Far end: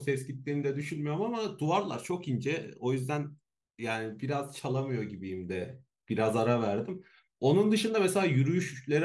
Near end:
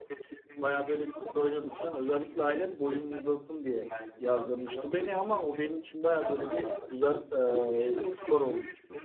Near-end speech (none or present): present